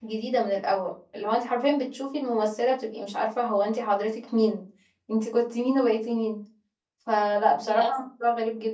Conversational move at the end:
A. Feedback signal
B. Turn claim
A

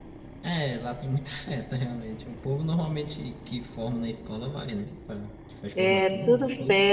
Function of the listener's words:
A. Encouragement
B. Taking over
B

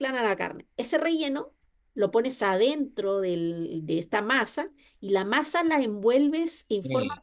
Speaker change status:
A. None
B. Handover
A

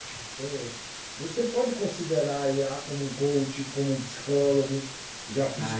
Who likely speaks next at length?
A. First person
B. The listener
B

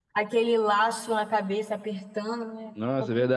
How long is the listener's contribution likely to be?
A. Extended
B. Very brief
A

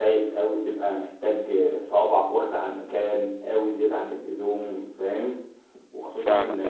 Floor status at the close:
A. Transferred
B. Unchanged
B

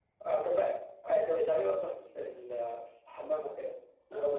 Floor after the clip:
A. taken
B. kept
B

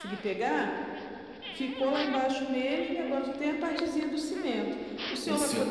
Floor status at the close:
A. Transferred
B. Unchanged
B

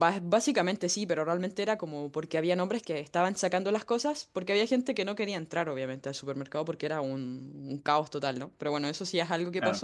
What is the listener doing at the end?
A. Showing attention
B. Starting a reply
A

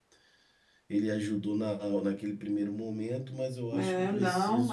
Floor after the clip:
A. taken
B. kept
A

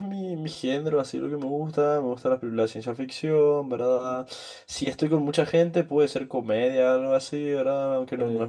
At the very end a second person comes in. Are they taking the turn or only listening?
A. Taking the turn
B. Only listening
B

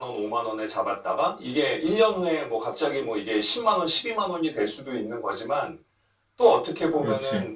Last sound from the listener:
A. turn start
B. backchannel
B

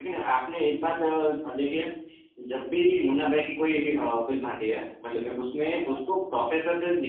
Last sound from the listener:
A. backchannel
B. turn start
A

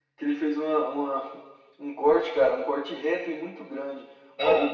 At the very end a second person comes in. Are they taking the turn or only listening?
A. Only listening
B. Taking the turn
A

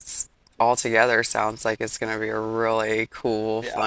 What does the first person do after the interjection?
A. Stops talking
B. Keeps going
A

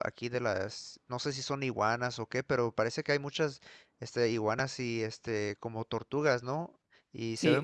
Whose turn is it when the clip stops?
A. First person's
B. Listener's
B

